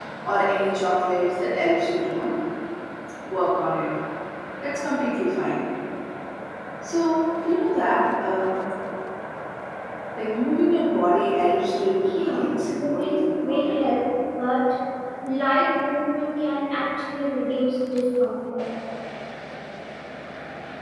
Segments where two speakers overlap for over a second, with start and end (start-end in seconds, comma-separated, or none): 12.2-13.7